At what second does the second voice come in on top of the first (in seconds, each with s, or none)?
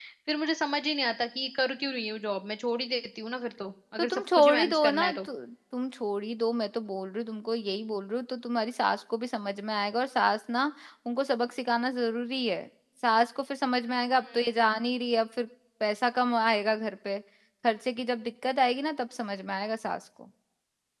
4.0 s